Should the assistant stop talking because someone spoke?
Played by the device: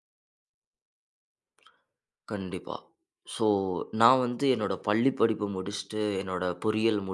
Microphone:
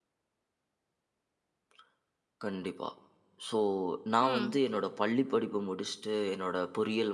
Yes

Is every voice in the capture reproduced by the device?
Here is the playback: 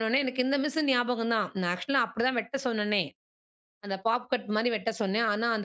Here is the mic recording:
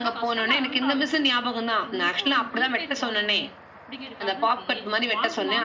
No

